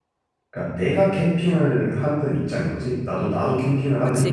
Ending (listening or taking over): taking over